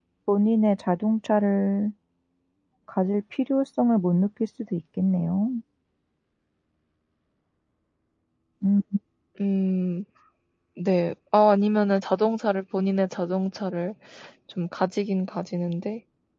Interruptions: none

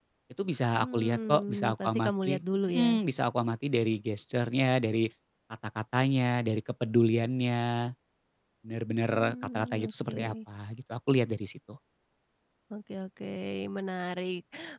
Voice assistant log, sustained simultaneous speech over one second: present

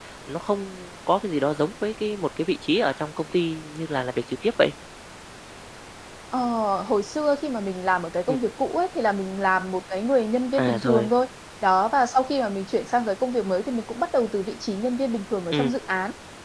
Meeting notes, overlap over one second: none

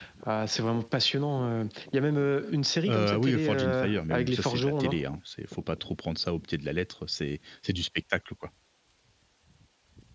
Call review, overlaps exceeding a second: present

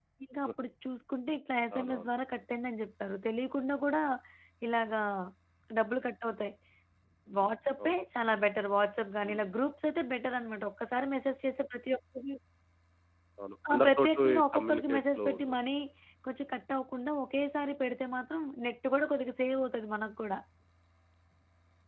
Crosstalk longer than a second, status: present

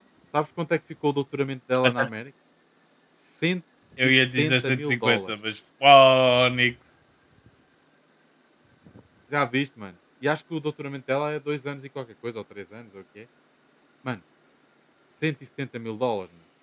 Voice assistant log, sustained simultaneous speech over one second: present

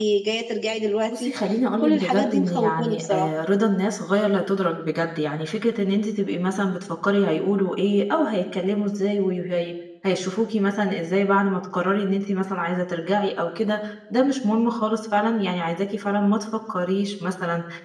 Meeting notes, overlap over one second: present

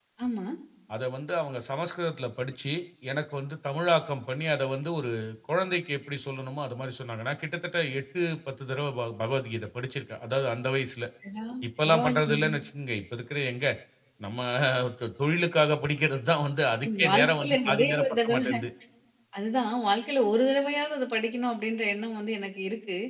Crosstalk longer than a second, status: present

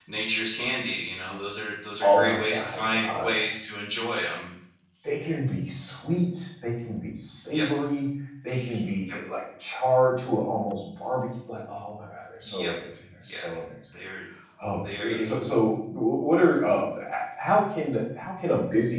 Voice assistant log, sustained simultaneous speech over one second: present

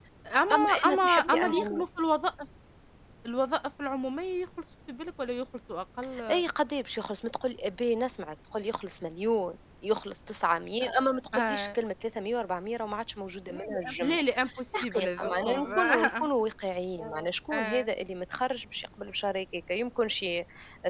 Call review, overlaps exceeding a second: present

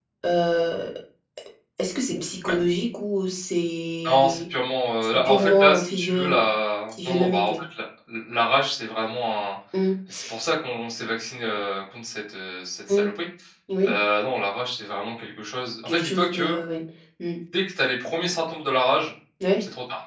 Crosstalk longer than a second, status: present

